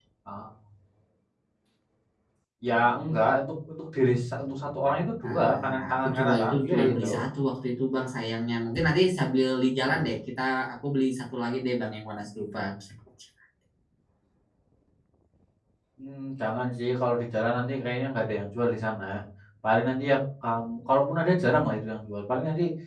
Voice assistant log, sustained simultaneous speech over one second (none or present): present